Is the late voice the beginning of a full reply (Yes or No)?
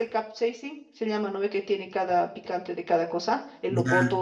No